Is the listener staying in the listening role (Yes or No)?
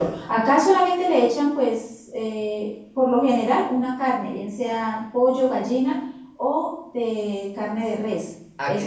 No